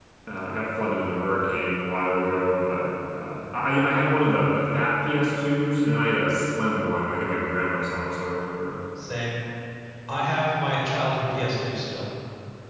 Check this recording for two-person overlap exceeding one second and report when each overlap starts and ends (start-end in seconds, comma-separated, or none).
none